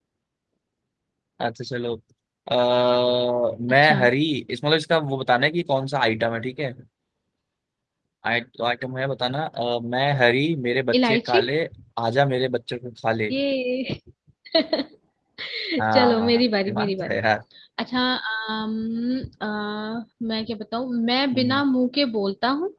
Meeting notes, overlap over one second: present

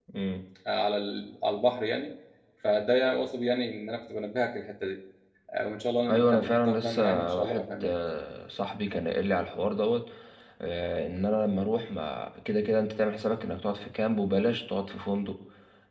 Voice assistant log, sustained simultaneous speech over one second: present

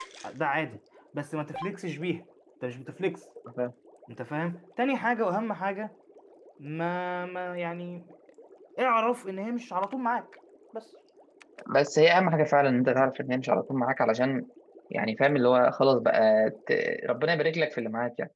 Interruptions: none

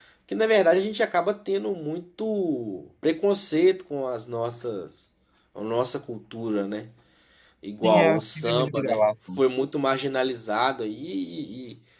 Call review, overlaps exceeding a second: present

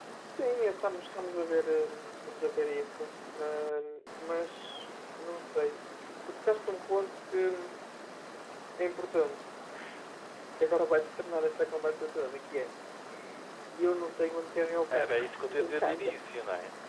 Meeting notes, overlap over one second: present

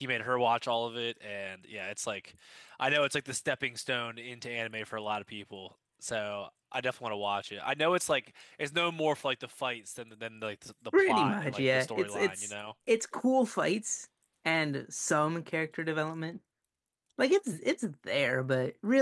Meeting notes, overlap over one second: present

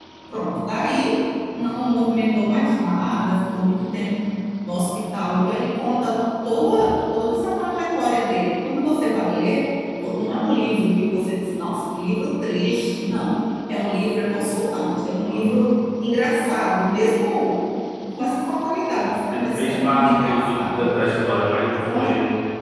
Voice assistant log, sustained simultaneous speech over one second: present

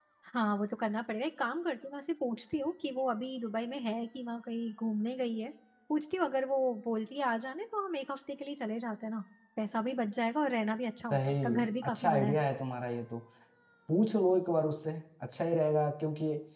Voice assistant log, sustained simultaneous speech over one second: present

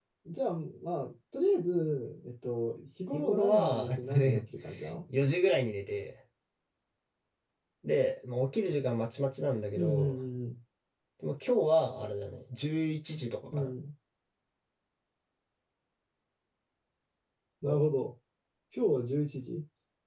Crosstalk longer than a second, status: present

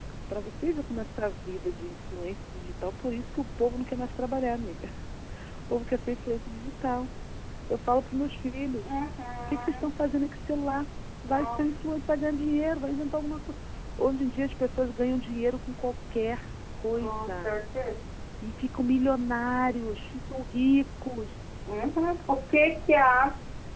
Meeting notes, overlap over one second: none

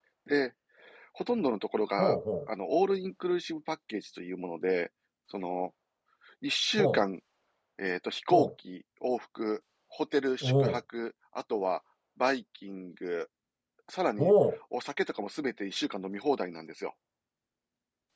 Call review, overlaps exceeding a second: none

